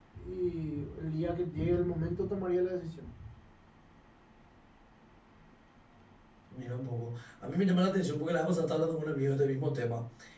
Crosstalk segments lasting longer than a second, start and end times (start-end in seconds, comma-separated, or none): none